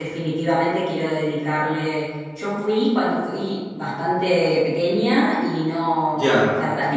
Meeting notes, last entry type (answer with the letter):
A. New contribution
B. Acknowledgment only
B